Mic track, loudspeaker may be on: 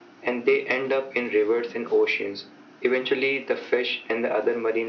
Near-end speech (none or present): none